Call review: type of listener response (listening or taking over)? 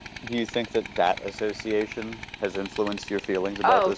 taking over